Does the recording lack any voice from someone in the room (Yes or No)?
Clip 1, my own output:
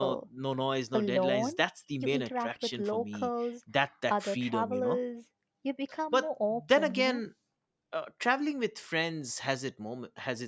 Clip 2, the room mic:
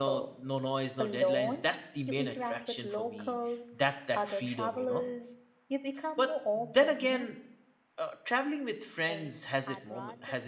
No